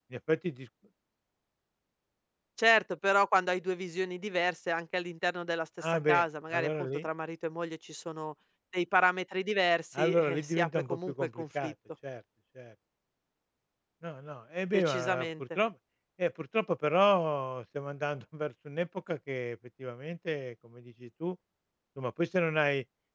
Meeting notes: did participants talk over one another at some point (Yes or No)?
Yes